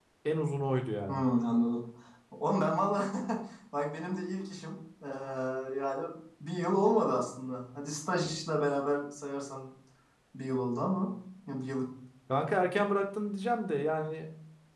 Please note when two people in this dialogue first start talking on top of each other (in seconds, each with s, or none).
none